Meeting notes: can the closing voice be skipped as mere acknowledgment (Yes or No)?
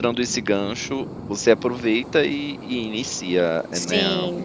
No